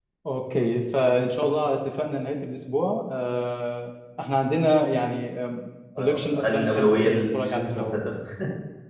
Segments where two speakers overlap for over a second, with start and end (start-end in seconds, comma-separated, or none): 6.0-8.0